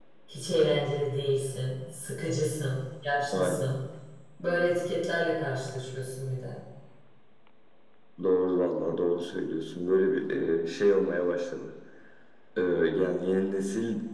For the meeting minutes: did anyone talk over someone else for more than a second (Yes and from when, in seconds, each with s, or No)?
No